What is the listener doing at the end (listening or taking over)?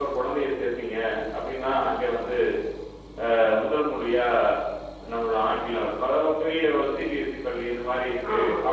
listening